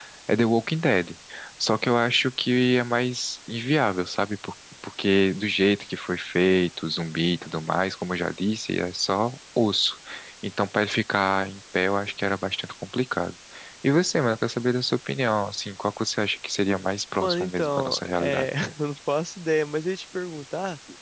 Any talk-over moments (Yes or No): Yes